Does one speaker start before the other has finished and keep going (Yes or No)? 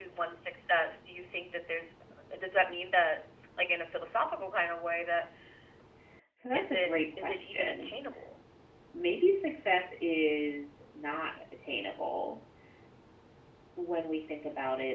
Yes